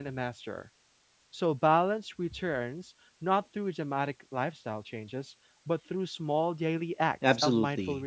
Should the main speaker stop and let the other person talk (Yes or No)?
Yes